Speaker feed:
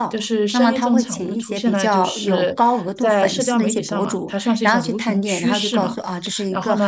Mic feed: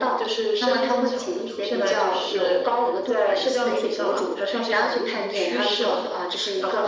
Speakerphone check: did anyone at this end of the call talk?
No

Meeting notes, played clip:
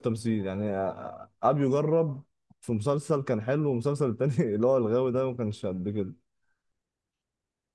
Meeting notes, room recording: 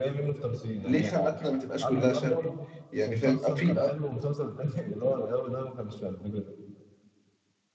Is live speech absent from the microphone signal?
No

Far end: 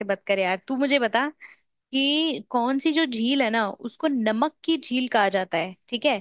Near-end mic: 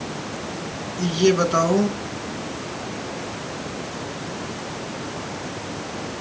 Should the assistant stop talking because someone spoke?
Yes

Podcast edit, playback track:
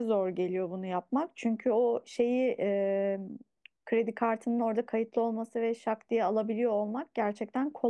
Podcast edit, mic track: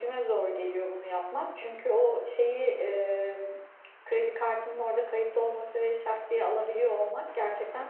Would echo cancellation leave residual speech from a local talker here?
No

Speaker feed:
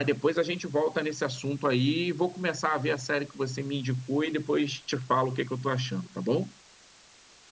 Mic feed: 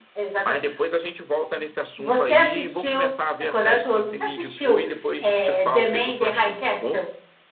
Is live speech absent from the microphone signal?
No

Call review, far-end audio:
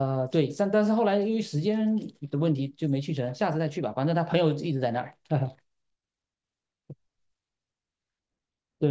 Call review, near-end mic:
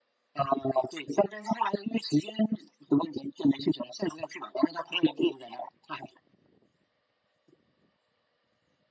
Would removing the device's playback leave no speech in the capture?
Yes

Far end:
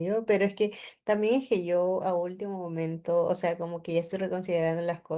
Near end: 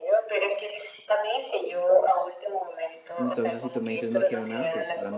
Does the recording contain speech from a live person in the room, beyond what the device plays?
Yes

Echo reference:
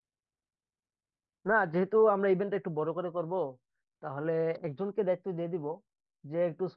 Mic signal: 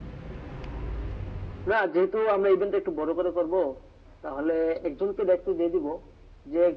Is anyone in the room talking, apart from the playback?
No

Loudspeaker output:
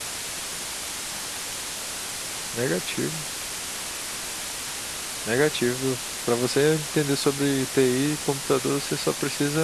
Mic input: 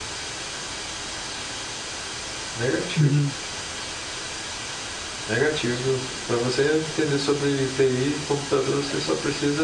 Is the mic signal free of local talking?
No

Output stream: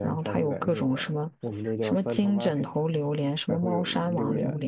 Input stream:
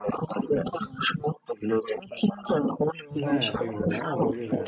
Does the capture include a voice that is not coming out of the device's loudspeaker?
Yes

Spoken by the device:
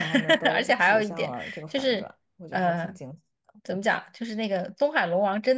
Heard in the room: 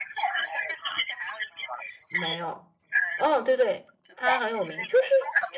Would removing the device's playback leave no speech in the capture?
No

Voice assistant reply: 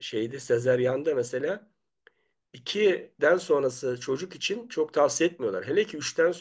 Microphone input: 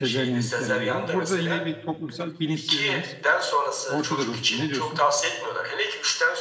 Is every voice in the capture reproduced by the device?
No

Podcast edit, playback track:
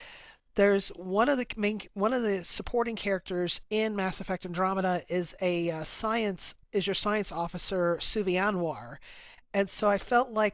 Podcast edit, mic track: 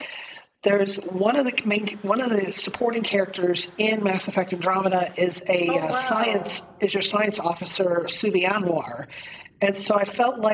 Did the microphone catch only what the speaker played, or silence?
No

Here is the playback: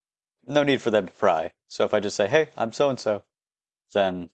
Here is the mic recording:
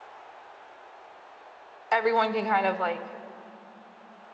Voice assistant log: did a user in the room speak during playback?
Yes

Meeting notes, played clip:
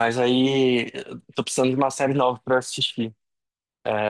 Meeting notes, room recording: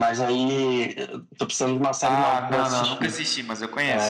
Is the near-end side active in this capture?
Yes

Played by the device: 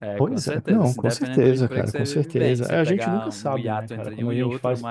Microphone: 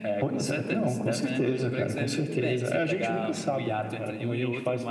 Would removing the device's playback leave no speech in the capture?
Yes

